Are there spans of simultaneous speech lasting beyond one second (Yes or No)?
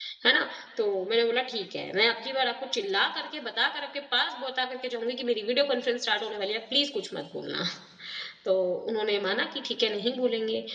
No